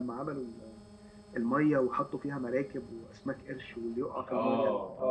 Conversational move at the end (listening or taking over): taking over